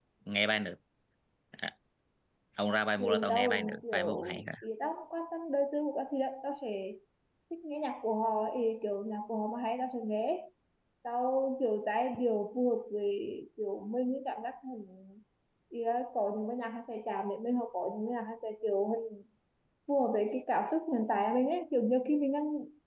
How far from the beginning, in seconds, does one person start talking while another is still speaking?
3.0 s

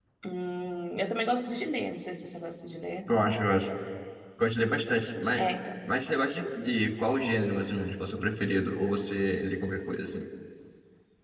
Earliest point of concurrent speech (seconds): none

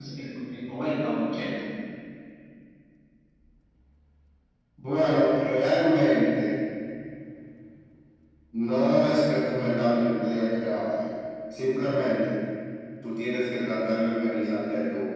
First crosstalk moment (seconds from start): none

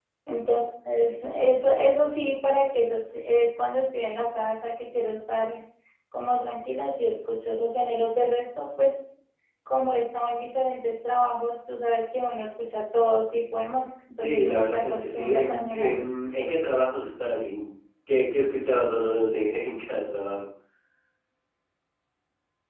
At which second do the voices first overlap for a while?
14.2 s

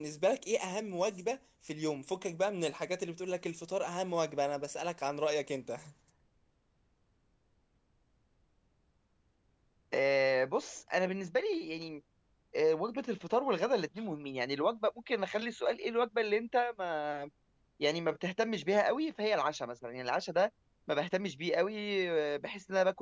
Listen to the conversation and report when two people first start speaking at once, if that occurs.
none

